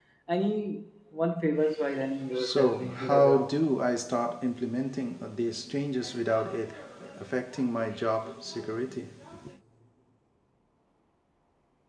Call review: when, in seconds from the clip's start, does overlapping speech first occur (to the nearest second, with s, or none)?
2 s